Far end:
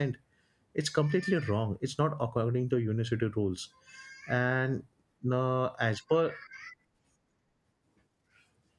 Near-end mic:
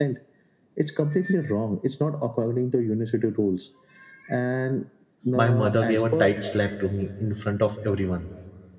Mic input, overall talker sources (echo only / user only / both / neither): both